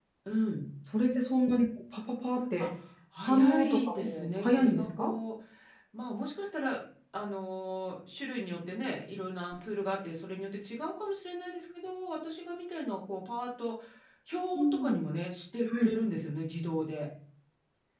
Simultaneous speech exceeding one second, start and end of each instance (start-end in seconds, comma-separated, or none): 3.2-5.1